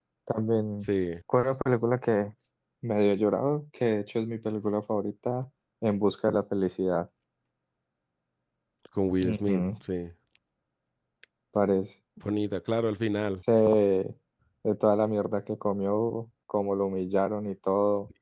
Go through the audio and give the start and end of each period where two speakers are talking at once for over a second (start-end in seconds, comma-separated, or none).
none